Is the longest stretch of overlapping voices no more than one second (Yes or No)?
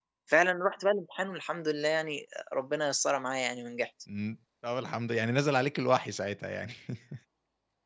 Yes